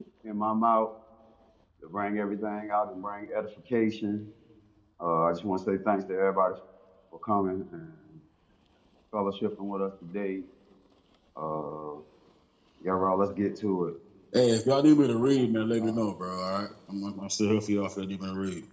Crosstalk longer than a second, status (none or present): none